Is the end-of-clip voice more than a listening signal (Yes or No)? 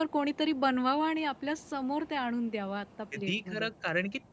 Yes